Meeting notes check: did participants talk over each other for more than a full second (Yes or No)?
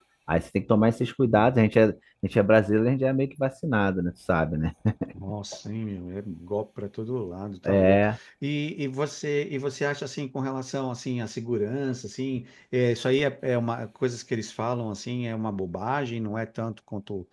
No